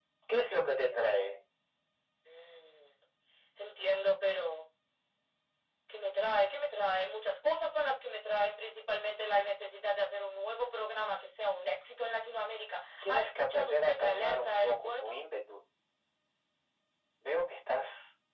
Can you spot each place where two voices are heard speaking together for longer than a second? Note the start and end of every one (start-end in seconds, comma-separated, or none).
13.0-15.2